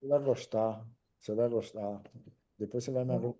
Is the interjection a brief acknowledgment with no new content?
Yes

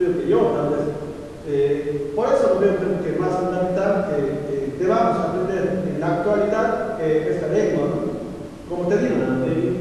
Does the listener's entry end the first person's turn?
No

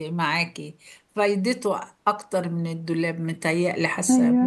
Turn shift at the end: No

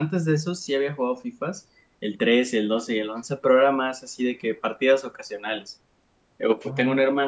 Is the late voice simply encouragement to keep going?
Yes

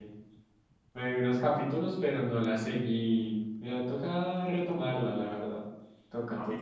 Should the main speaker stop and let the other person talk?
Yes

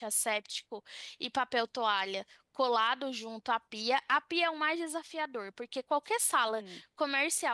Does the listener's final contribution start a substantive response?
No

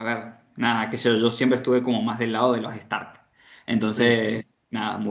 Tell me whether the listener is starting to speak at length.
No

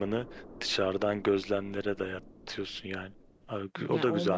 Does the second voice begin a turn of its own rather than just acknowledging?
Yes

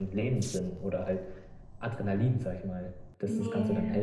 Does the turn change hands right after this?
Yes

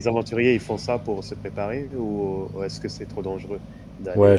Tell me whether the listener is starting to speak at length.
Yes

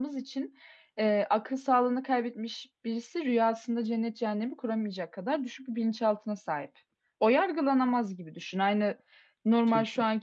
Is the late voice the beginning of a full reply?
No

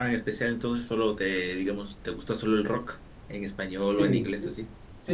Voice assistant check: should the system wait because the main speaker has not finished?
No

